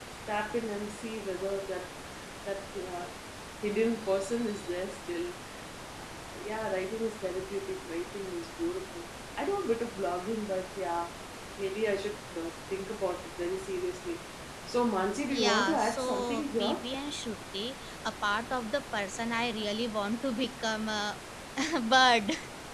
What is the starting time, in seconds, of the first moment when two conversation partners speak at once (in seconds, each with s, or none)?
15.3 s